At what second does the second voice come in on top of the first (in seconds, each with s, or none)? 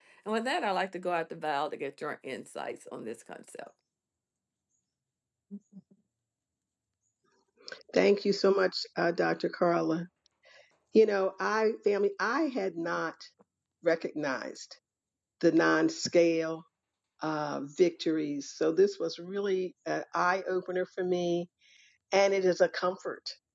none